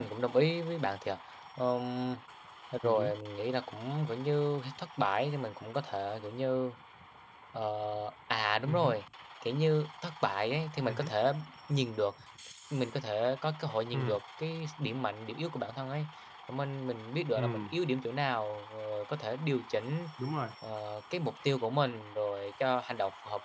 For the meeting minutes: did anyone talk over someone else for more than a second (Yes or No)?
No